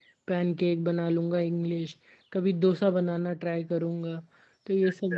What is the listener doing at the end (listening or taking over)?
listening